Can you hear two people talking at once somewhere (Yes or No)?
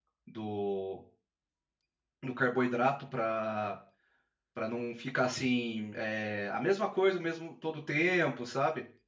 No